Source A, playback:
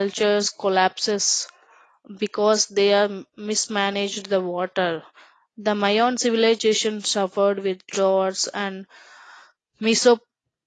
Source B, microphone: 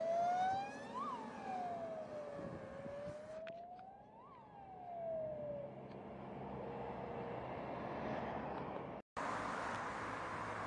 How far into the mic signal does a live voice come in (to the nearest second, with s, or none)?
none